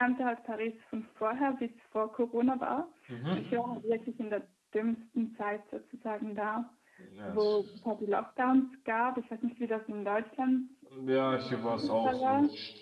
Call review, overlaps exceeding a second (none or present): present